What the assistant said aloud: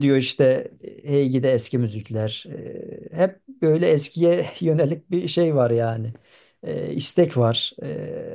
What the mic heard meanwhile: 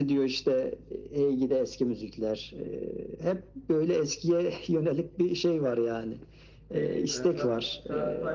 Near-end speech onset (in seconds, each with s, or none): 6.7 s